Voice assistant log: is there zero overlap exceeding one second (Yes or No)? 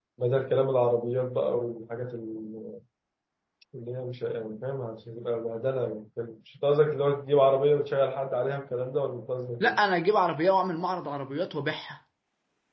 Yes